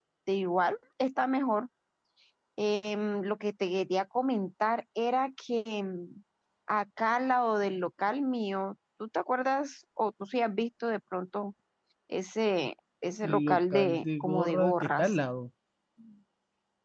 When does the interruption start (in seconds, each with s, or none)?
13.2 s